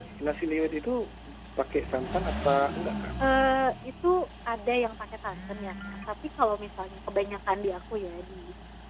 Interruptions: none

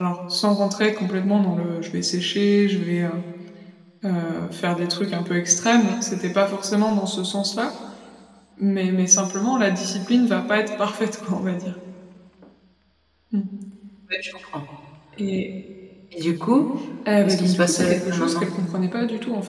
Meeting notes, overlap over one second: present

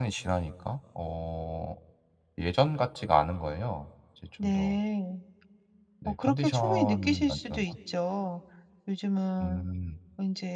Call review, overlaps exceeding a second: present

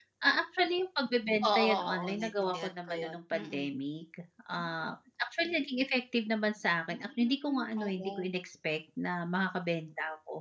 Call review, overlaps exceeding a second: present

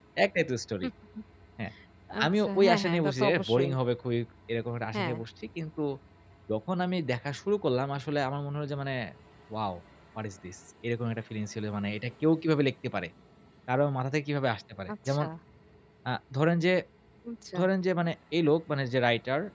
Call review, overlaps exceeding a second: present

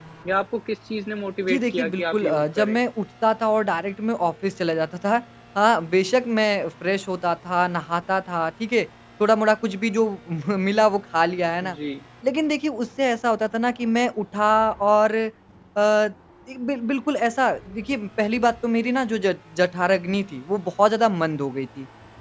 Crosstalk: present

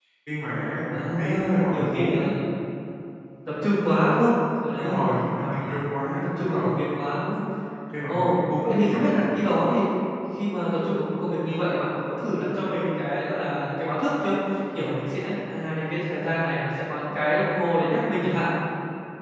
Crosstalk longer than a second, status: present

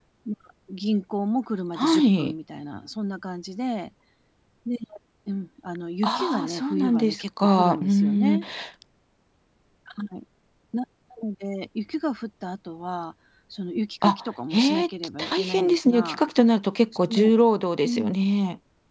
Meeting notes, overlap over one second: present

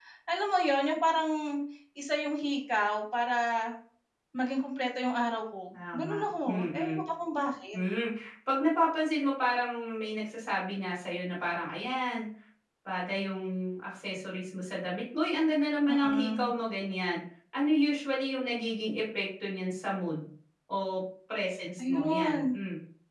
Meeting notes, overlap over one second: present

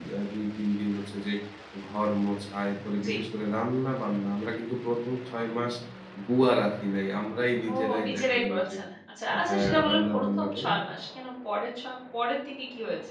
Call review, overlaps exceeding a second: present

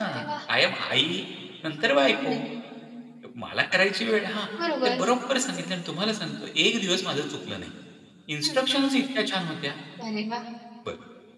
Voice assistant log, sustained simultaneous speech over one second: none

